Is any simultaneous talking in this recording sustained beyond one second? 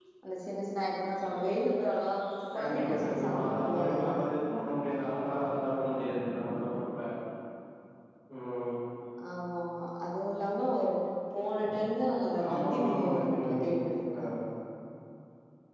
Yes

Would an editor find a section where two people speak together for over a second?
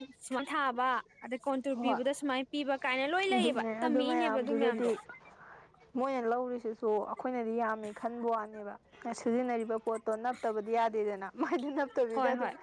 Yes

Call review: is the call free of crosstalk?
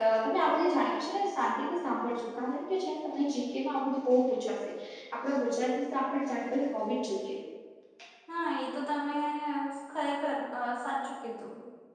Yes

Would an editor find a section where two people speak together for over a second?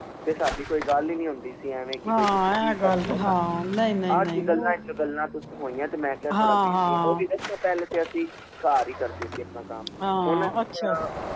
Yes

